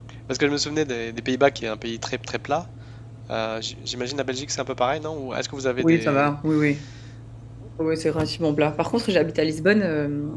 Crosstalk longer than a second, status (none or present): none